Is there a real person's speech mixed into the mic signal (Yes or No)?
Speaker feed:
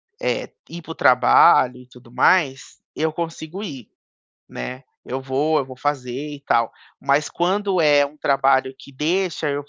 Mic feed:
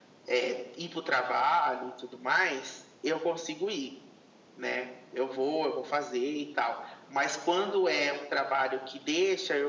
No